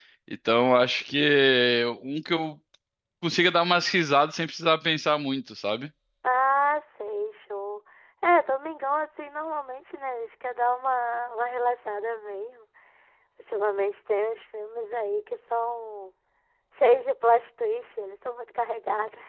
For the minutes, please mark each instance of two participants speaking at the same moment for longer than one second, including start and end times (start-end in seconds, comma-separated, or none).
none